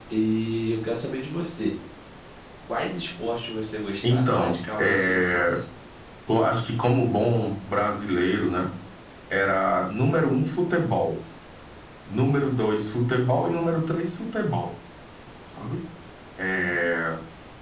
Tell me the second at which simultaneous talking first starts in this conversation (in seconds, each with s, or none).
4.0 s